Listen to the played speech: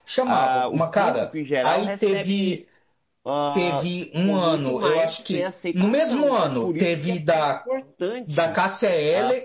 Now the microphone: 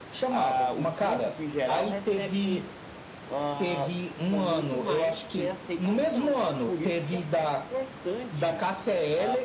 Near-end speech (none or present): none